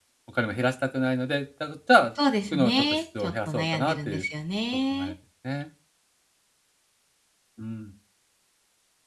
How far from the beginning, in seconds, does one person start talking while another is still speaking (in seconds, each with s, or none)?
2.5 s